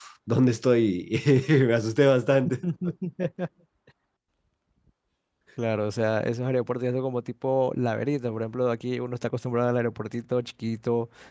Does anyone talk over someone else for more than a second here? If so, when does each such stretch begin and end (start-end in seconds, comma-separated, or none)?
none